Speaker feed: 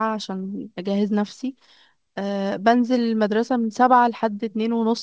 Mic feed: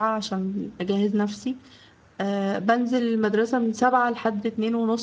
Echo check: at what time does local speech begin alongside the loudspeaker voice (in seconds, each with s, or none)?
none